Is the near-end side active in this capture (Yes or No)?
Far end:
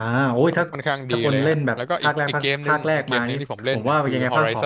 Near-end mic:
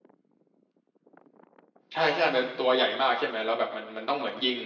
Yes